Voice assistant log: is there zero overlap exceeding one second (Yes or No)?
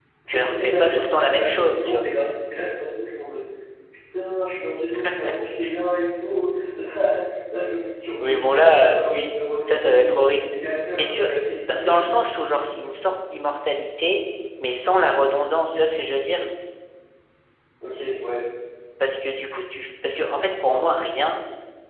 No